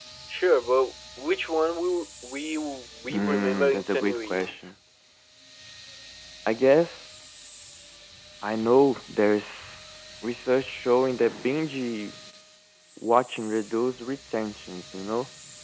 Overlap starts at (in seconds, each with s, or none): 3.1 s